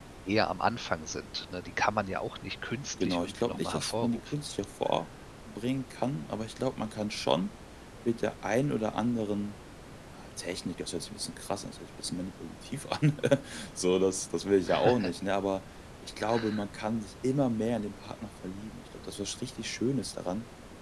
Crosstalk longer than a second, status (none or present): present